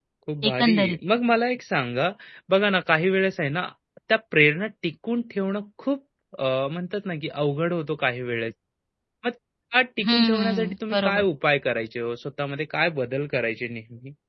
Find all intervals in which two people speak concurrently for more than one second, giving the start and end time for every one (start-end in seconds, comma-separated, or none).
10.0-11.2